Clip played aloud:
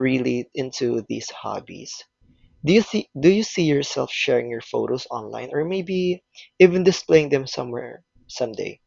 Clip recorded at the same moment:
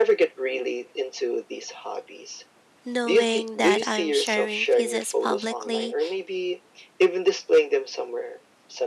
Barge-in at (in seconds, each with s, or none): 2.9 s